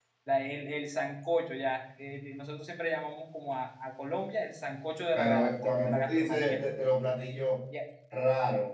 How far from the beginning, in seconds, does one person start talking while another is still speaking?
5.1 s

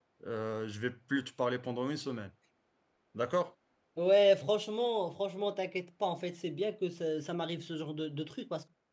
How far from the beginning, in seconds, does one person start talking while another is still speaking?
none

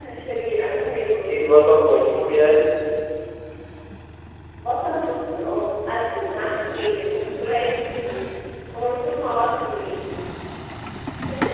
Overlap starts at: none

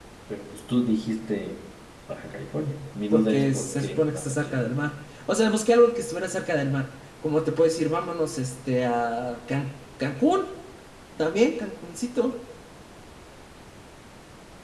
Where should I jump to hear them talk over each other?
3.1 s

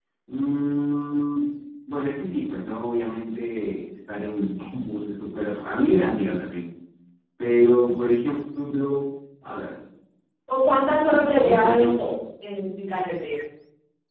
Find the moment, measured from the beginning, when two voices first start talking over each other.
10.8 s

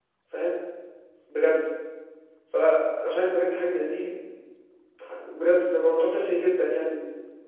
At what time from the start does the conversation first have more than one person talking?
none

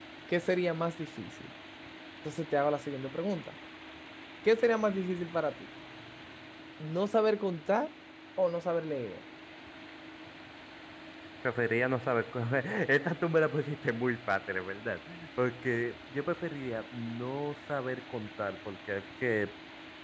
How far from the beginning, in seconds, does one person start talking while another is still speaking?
none

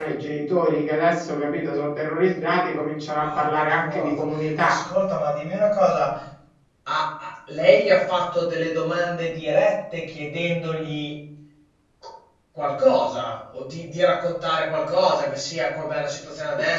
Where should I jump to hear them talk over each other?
3.2 s

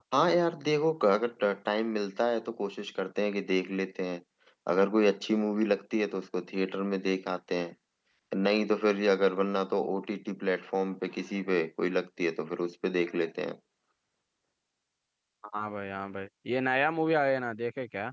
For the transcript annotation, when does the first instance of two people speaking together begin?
none

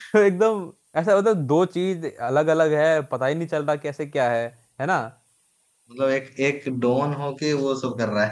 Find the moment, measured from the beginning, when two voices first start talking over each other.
none

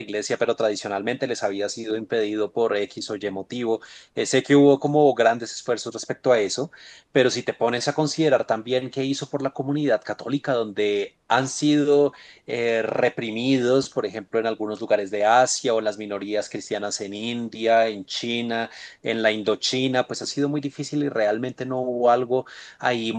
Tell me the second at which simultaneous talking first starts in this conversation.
none

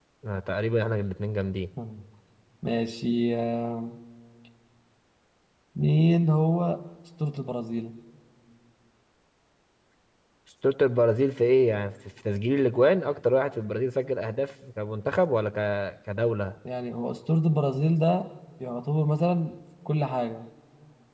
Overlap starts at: none

